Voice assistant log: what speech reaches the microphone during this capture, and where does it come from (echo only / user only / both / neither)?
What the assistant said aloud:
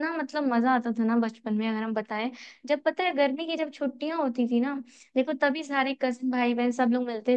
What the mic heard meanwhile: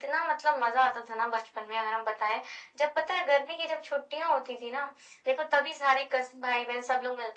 echo only